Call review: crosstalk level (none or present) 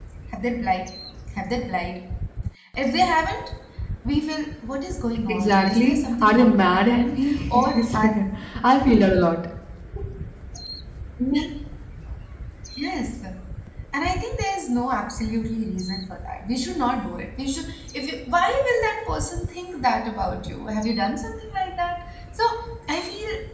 present